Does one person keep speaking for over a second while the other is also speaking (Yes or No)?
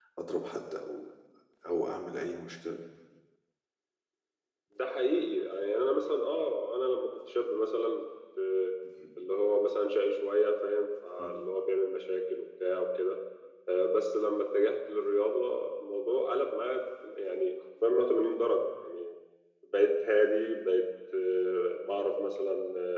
No